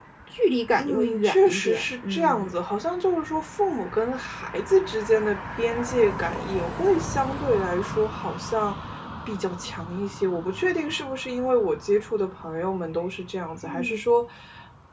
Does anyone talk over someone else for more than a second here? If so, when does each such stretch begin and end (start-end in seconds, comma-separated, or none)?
0.8-2.5